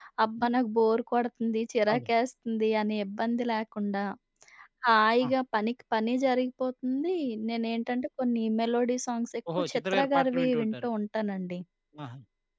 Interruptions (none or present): present